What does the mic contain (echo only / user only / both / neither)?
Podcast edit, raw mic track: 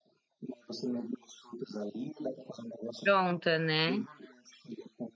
both